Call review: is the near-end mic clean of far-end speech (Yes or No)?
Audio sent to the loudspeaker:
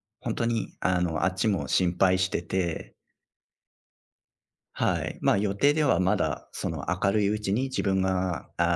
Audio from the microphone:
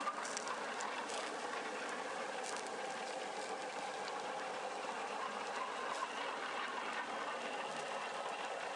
Yes